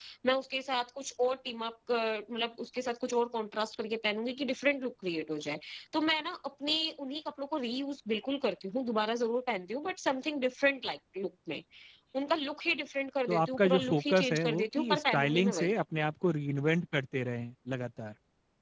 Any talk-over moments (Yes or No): Yes